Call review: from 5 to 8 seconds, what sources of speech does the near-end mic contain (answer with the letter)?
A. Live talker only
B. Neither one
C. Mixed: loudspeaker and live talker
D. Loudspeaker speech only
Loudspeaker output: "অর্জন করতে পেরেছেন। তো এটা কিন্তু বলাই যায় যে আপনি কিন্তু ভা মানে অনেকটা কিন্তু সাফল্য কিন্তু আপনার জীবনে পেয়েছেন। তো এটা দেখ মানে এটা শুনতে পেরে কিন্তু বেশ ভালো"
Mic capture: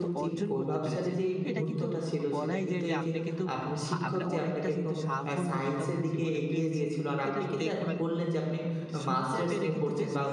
C